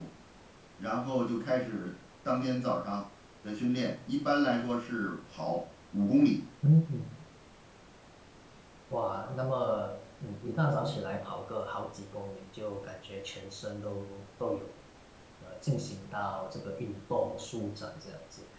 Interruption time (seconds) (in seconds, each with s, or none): none